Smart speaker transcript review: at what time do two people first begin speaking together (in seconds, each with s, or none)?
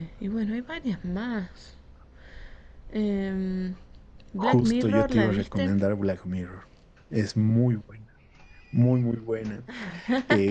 4.4 s